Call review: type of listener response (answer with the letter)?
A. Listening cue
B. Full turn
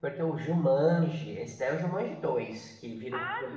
B